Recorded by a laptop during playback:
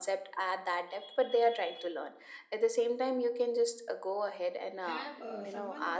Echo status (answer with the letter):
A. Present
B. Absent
A